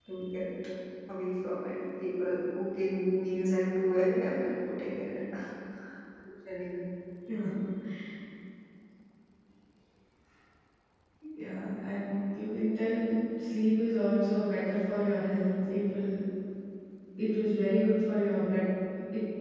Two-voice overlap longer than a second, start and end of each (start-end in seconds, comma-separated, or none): none